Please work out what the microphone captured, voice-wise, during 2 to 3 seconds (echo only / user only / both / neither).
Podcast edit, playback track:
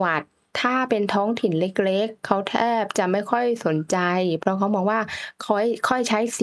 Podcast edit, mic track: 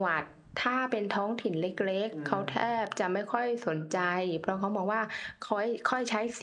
both